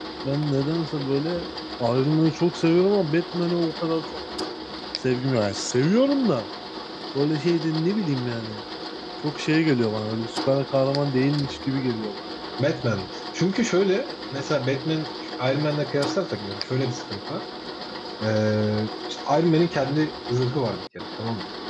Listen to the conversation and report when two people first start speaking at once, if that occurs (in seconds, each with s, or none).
none